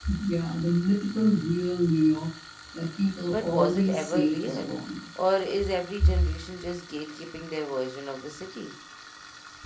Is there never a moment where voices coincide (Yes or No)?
No